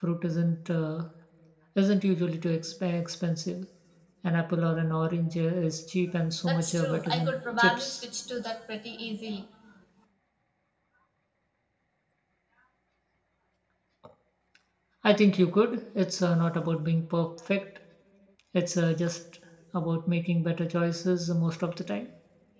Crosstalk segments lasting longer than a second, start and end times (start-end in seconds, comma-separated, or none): 6.4-8.0